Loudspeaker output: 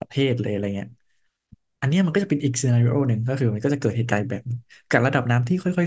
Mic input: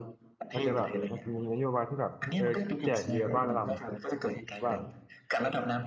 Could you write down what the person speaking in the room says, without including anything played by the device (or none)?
อาจจะแบบมันจะมีนโยบายที่แบบเออแจกเรือบ้านละลำว่า